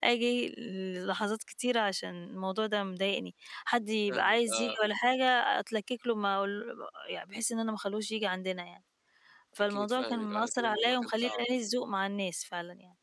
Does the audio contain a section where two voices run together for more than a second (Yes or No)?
Yes